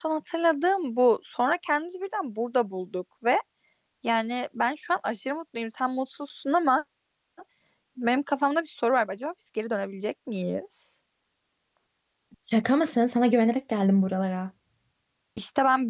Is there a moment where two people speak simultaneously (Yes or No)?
No